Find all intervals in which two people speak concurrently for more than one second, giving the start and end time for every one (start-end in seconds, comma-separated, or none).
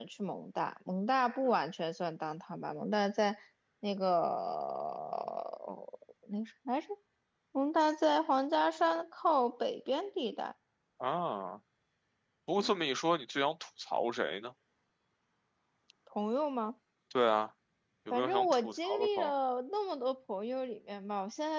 18.1-19.3